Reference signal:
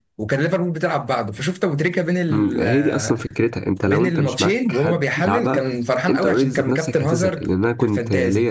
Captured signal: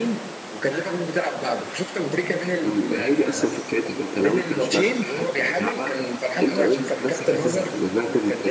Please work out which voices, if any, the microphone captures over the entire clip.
echo only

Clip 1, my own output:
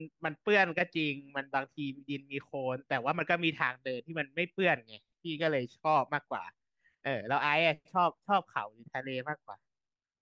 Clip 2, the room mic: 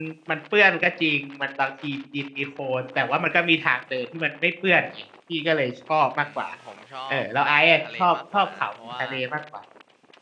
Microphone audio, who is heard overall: both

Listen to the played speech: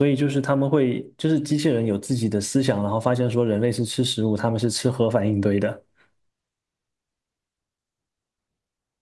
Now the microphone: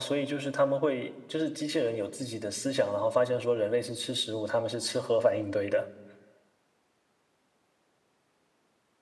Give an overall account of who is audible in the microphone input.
echo only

